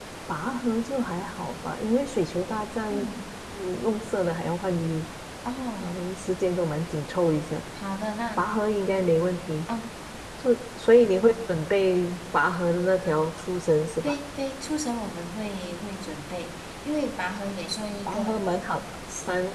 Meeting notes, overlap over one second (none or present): none